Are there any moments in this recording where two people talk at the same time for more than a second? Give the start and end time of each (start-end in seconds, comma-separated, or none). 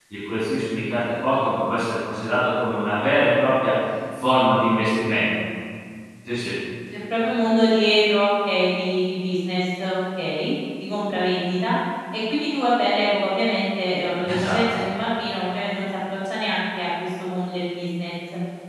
none